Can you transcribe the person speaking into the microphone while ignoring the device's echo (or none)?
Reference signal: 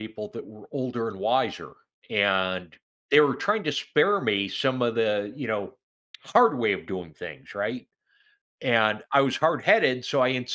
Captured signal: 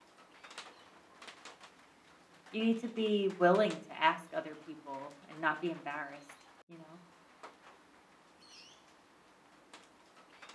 you need to be willing to ask other people and not be embarrassed, you know?